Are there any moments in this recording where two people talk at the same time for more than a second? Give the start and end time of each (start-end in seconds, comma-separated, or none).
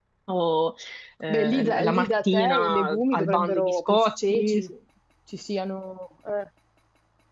1.3-4.6